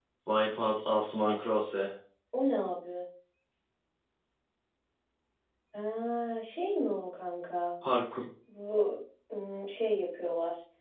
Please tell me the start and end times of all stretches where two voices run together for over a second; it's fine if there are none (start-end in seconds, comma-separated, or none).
none